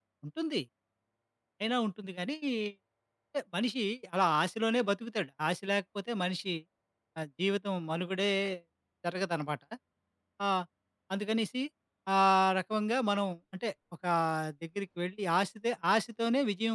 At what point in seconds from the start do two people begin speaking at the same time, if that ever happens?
none

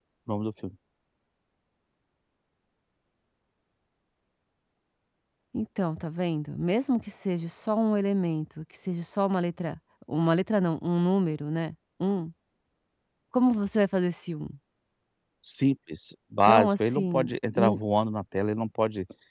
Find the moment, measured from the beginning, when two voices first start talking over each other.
16.4 s

